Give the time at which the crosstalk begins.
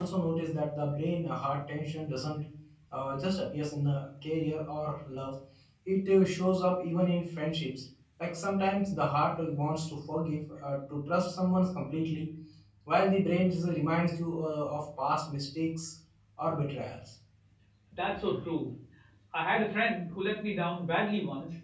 none

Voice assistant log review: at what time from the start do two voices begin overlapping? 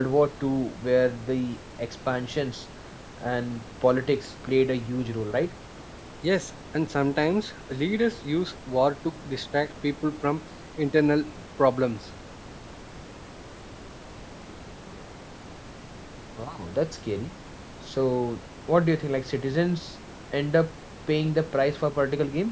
none

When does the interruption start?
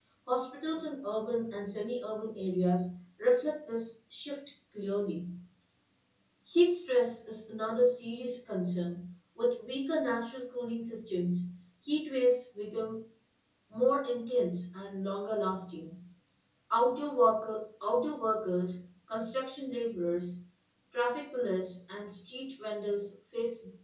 none

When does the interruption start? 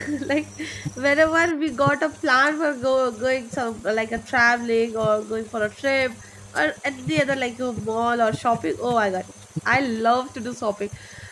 none

